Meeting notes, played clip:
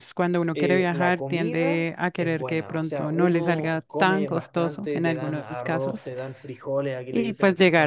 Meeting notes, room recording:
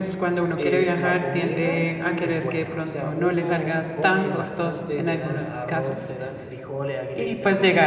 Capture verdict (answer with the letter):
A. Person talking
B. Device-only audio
B